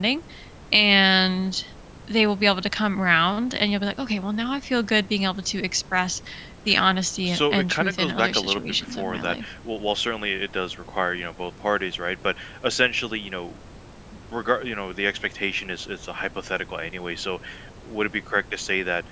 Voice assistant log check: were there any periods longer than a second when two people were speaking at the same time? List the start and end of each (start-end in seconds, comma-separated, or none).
7.2-9.4